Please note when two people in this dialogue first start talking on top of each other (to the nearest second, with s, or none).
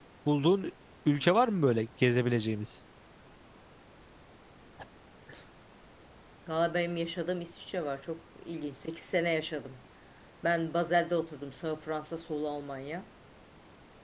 none